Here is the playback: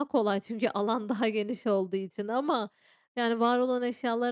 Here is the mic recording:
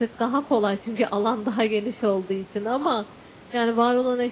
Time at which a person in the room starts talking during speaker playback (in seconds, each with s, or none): none